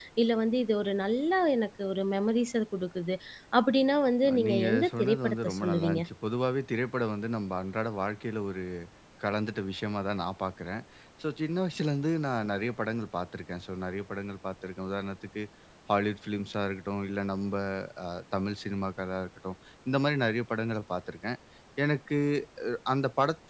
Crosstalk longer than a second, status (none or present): present